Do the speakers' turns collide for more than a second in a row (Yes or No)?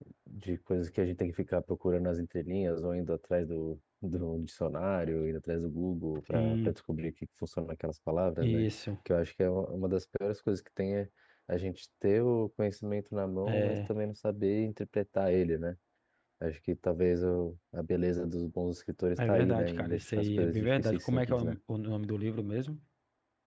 Yes